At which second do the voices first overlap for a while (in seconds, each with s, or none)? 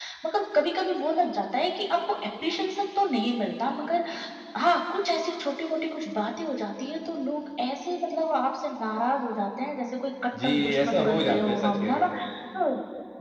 10.3 s